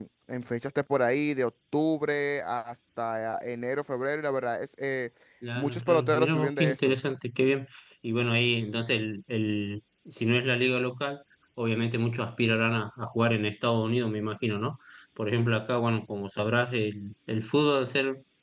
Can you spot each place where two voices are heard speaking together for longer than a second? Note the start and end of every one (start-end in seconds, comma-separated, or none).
5.5-7.0